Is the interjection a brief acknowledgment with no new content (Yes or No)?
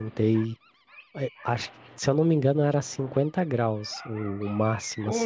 Yes